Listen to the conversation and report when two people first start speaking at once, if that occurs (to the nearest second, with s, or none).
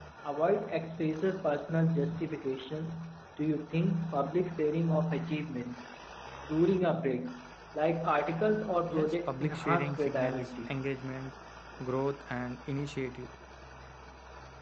9 s